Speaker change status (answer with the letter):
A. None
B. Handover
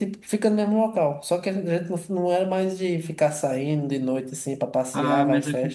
B